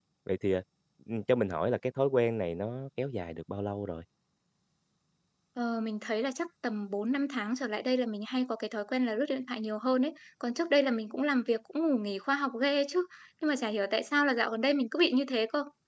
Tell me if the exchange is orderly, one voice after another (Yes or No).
Yes